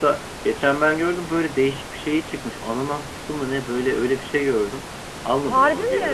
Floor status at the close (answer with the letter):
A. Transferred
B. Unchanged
B